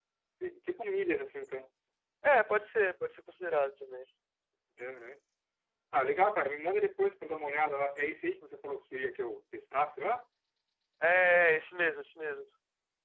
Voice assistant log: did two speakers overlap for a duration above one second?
No

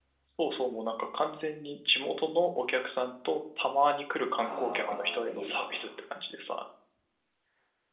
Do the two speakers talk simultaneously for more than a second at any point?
Yes, from 4.4 s

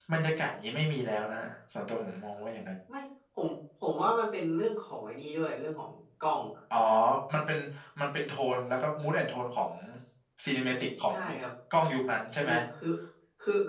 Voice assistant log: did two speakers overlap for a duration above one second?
No

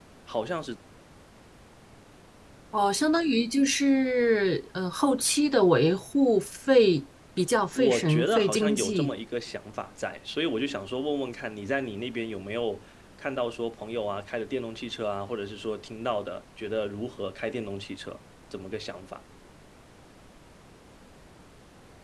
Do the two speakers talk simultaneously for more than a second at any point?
Yes, from 7.8 s

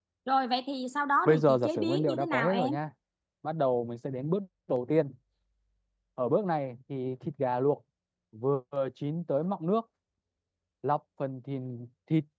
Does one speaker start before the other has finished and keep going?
Yes, from 1.2 s

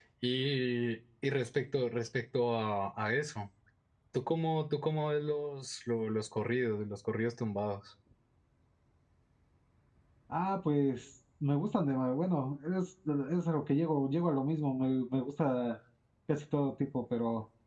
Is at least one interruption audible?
No

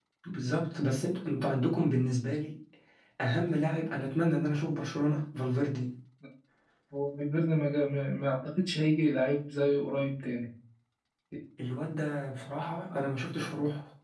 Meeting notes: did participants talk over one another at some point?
No

